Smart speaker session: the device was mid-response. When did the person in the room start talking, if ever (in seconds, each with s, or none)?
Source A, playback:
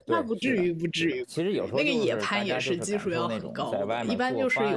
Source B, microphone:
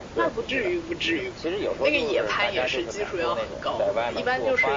none